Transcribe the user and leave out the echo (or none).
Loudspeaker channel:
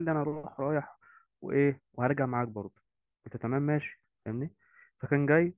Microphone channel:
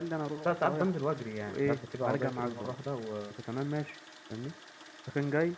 لا ساعات بنزل وأجري يعني ساعات بسيب العربية كده مرة واحدة و...